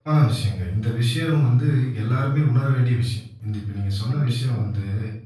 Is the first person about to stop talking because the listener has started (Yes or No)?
No